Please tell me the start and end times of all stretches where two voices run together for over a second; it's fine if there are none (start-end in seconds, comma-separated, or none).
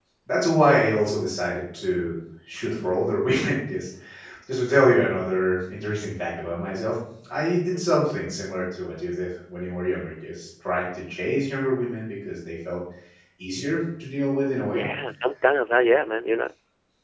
none